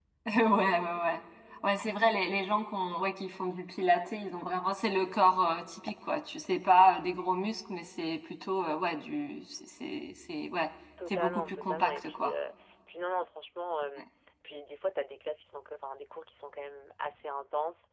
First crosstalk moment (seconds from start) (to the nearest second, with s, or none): 11 s